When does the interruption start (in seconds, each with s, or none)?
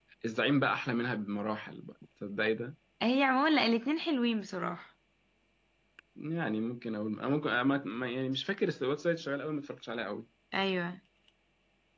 none